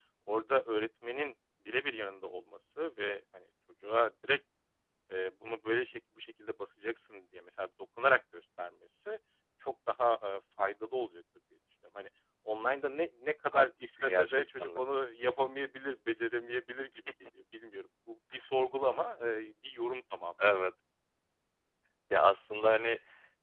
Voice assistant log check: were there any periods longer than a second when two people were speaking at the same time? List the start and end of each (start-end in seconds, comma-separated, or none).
13.5-14.8